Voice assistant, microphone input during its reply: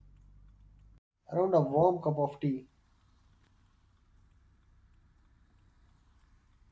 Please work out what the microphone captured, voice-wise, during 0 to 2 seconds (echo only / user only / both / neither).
user only